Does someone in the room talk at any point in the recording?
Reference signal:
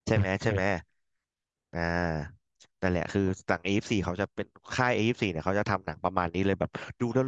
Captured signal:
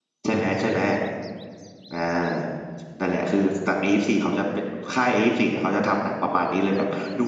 No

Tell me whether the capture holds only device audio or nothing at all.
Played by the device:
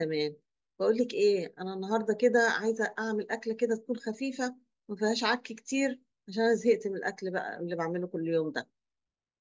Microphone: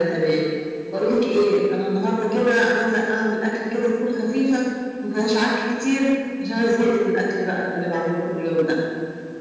Yes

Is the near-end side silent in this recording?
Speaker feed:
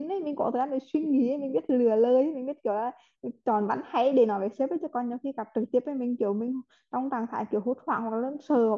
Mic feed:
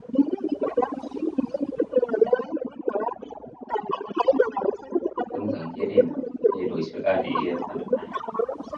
No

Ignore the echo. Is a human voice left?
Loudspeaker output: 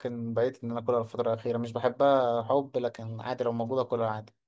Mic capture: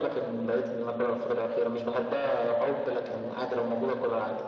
No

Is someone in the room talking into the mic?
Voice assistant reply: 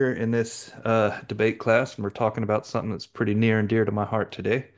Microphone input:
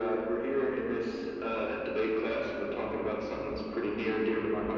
No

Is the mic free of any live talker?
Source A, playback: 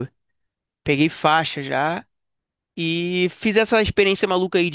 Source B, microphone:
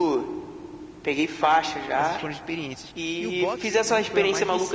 No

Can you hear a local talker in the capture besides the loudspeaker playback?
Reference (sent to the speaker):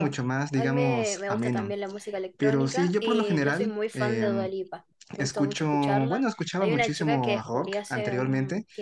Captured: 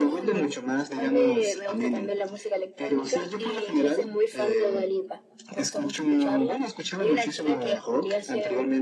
No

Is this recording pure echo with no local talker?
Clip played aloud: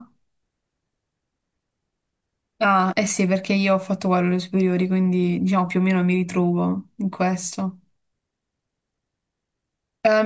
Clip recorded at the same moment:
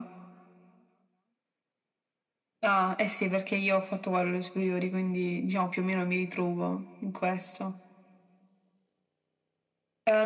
Yes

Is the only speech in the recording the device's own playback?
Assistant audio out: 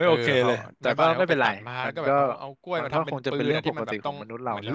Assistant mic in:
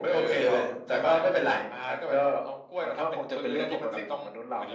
Yes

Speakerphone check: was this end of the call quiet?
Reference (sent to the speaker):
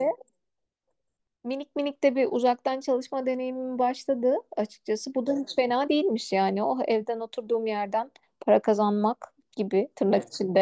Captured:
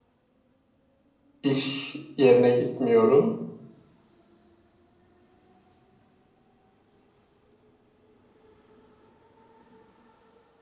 No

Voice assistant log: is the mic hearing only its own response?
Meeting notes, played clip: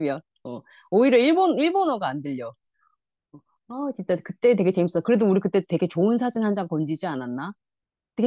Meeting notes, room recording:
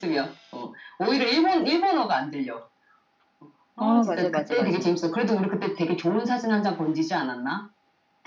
No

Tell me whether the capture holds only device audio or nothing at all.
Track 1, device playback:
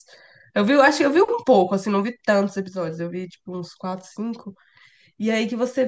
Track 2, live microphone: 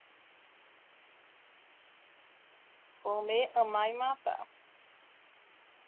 No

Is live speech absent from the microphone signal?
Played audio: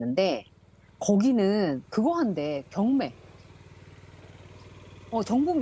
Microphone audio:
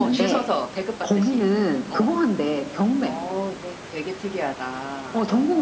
No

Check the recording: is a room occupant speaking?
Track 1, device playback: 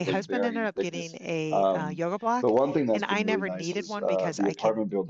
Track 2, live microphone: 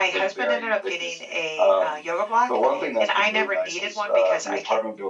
No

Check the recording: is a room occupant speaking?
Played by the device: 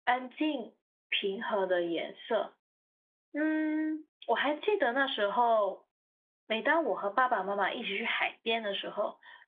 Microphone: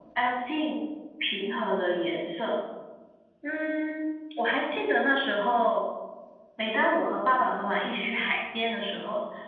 No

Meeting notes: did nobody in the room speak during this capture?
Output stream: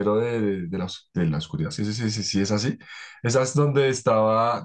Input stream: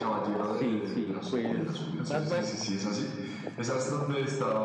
No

